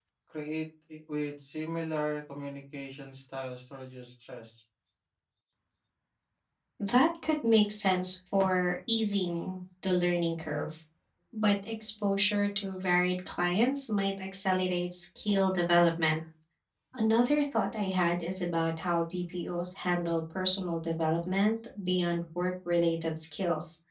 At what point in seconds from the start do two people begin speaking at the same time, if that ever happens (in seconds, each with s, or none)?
none